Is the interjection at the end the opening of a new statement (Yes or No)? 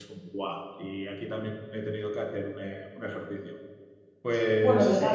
Yes